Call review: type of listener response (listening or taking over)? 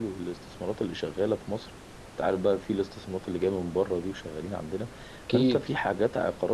listening